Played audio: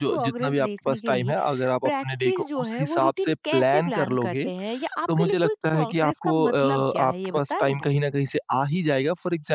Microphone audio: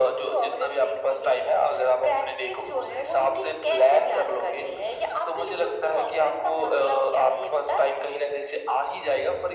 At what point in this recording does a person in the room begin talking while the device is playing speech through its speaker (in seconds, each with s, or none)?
none